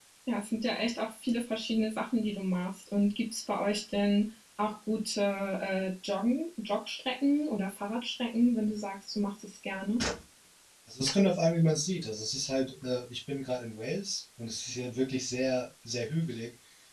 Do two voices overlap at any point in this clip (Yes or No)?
No